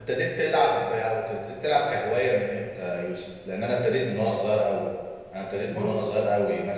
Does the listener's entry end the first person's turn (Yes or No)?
No